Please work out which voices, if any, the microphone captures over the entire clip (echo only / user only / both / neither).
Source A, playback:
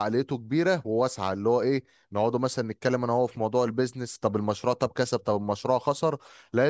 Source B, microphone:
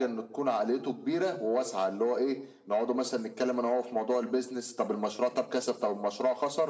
echo only